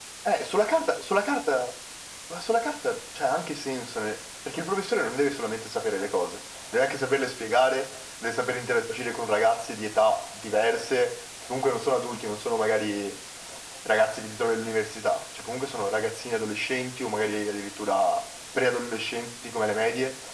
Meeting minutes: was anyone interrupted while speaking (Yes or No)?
No